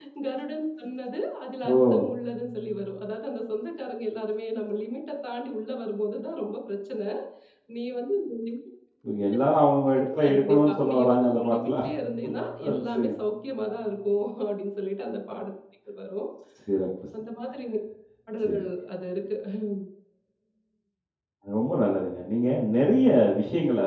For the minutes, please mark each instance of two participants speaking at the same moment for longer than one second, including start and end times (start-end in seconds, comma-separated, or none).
10.2-11.7